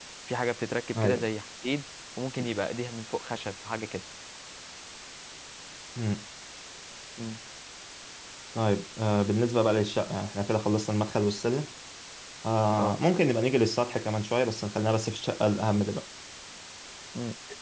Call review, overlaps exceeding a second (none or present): none